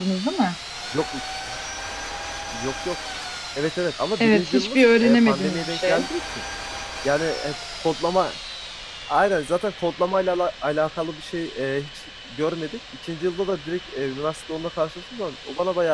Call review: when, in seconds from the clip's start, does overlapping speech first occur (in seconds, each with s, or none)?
4.2 s